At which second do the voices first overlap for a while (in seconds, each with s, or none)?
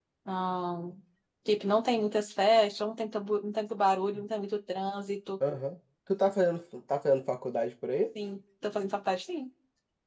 none